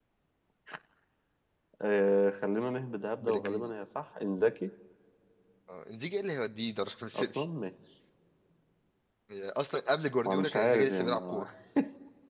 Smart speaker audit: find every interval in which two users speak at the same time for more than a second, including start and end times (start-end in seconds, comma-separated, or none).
10.2-11.4